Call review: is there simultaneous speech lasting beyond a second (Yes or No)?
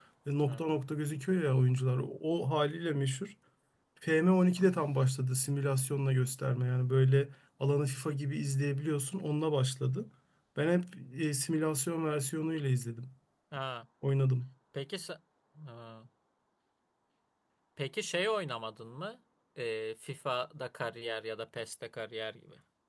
No